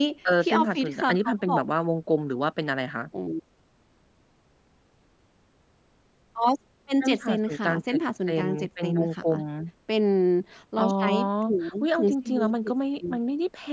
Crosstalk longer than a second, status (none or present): present